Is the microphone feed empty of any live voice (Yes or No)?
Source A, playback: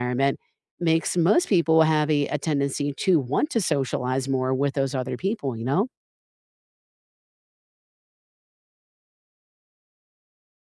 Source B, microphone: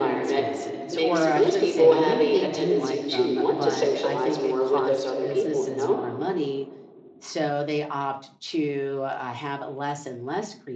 No